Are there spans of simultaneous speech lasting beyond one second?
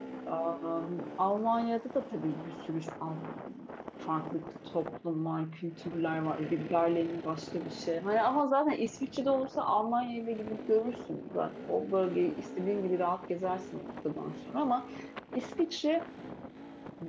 No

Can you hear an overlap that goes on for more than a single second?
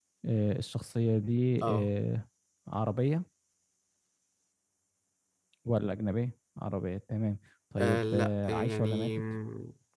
Yes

